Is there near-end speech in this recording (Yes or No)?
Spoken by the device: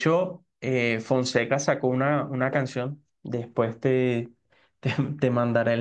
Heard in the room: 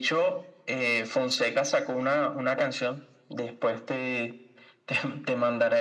No